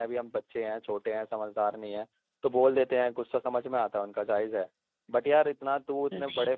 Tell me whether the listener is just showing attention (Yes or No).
Yes